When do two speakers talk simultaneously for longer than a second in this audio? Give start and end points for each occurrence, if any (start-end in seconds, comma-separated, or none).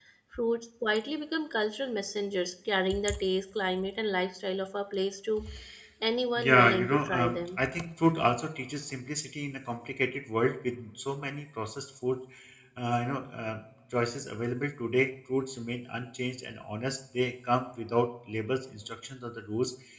6.4-7.6